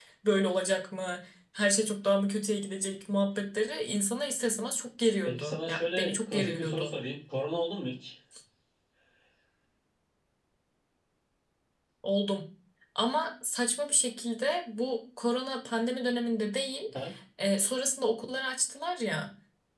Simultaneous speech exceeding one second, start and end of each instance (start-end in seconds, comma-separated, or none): 5.2-6.9